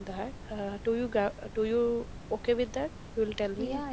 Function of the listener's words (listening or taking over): taking over